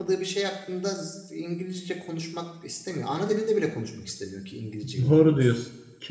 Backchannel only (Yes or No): No